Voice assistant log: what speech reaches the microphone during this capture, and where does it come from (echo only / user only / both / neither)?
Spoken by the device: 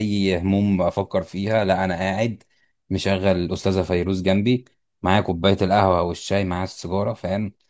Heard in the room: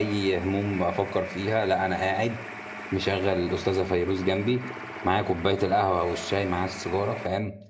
echo only